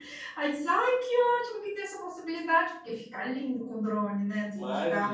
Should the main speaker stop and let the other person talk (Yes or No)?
Yes